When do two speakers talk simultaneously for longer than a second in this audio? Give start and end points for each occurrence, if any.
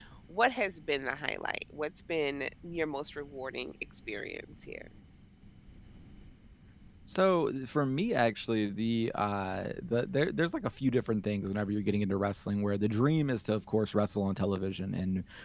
none

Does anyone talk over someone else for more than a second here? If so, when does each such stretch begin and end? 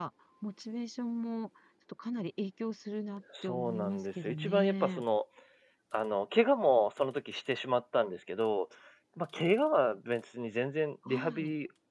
3.4-5.0

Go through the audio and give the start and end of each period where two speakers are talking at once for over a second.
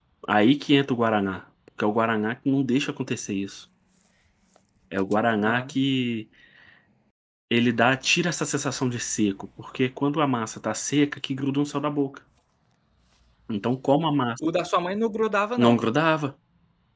none

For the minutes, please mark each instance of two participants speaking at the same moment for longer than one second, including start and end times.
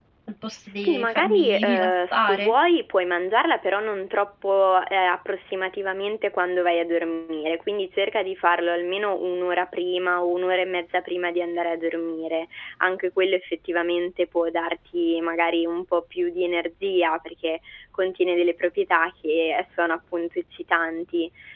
0.8-2.5

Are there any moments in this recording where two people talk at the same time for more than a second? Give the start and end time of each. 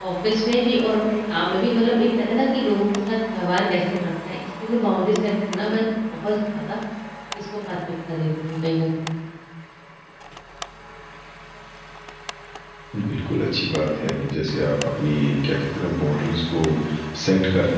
none

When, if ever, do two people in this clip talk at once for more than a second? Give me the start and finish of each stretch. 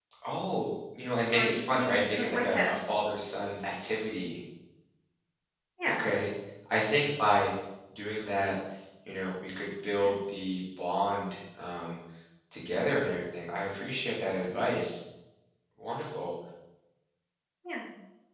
1.3-2.8

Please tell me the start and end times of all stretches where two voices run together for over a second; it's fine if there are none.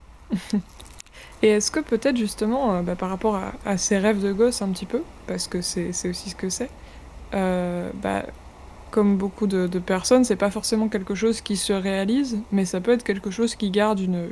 none

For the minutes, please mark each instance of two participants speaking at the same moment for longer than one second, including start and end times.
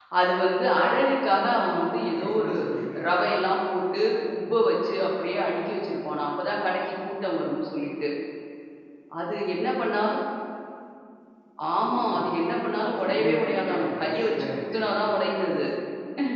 13.1-15.1

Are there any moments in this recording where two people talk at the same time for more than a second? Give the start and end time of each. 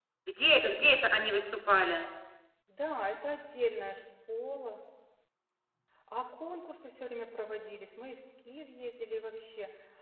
none

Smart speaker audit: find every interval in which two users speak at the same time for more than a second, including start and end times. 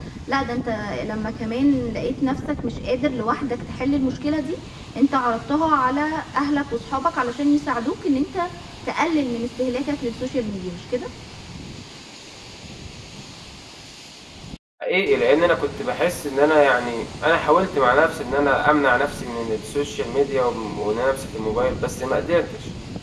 none

